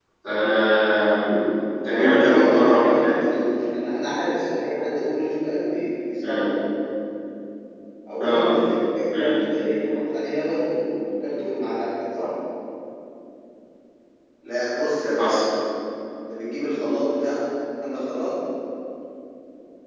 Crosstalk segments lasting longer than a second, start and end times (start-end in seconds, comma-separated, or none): 1.9-3.2